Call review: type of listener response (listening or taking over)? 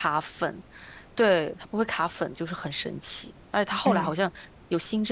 listening